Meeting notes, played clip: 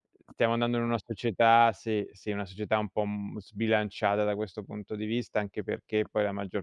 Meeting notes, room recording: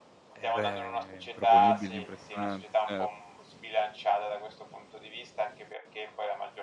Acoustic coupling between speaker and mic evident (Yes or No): Yes